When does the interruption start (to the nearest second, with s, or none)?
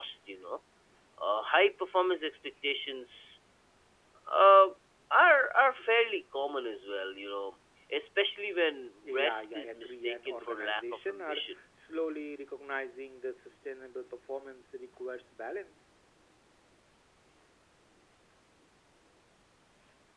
9 s